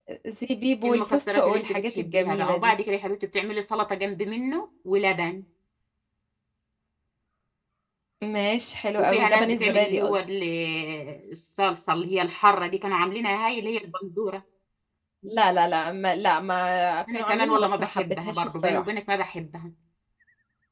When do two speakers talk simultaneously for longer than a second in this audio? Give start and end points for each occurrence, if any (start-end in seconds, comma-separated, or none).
0.8-2.7, 9.0-10.2, 17.1-18.8